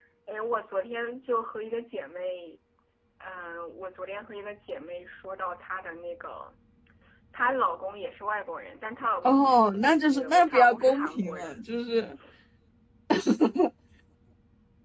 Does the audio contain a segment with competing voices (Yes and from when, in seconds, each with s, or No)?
Yes, from 9.2 s